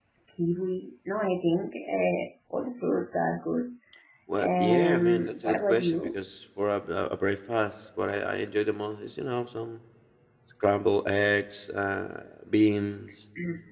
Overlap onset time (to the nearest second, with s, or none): 4 s